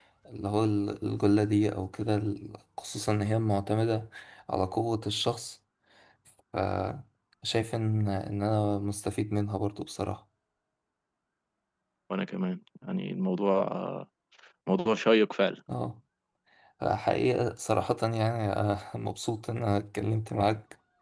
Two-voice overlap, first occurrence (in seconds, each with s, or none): none